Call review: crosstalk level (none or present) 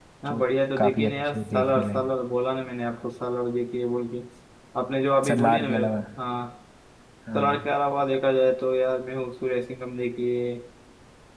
present